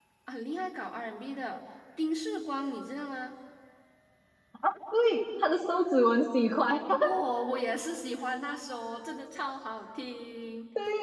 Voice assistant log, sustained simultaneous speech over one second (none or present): none